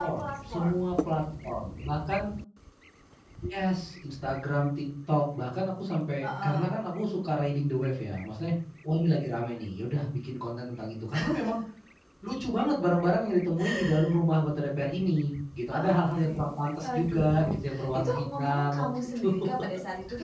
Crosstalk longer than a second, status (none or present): present